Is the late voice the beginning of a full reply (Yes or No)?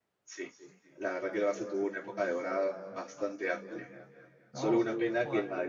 No